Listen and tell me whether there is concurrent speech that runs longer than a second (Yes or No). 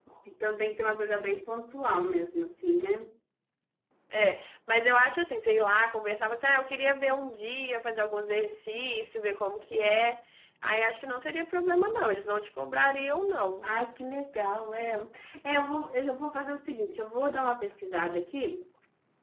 No